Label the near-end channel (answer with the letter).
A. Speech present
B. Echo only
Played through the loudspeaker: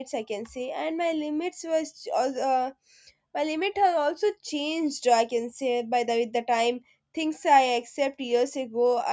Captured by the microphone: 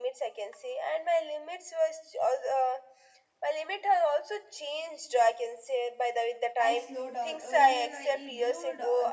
A